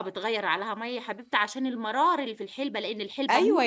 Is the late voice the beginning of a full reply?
Yes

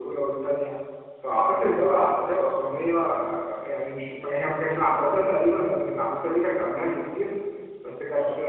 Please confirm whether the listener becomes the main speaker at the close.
No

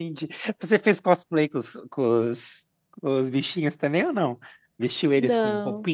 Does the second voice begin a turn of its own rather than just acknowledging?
No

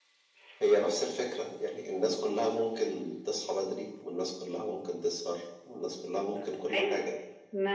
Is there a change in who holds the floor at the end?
Yes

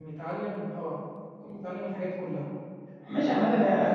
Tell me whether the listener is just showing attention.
No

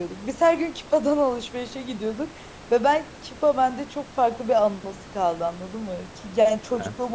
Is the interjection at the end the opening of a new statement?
No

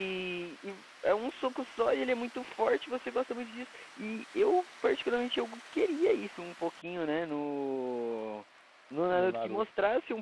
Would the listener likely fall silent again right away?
Yes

